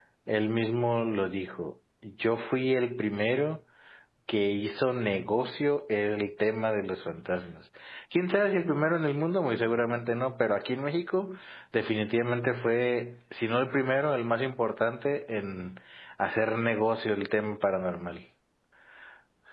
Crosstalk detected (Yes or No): No